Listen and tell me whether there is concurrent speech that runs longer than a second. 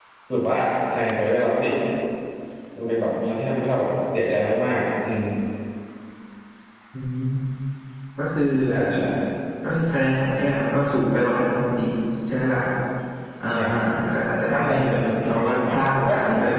Yes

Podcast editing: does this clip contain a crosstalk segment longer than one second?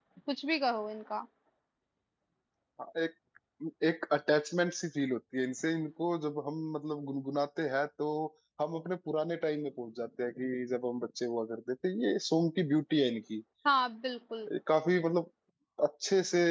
No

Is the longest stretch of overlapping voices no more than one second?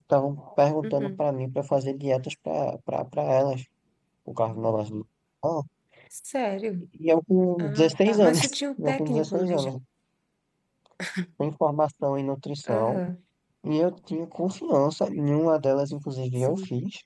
No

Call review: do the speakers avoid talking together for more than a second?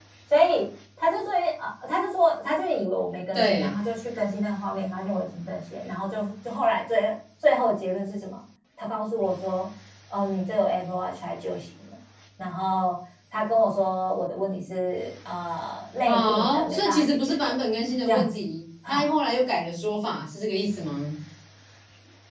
No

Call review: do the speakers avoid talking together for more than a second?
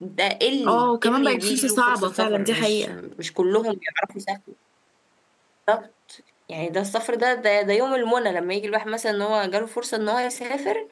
No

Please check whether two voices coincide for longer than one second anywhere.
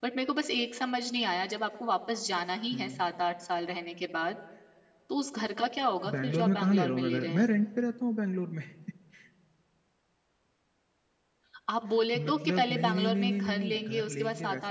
Yes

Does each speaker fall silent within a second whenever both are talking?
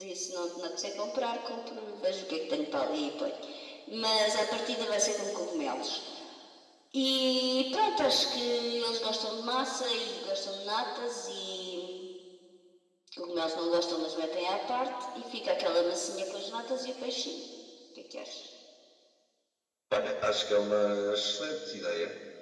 Yes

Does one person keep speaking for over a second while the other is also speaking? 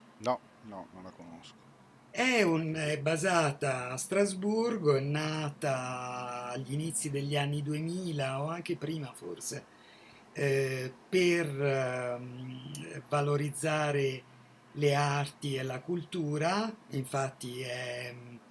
No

